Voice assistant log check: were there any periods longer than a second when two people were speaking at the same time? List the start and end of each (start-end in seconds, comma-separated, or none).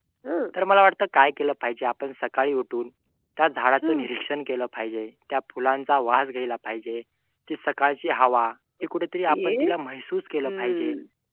none